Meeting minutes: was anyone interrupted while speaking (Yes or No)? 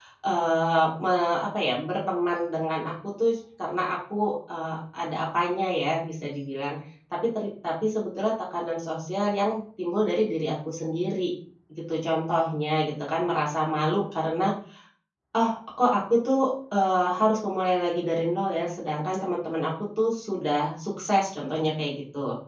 No